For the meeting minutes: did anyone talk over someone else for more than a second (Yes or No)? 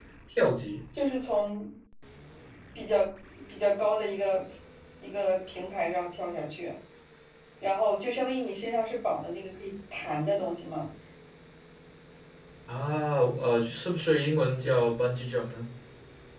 No